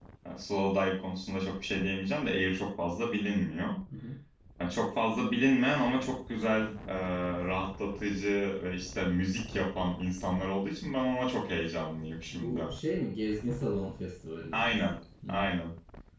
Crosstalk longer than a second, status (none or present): none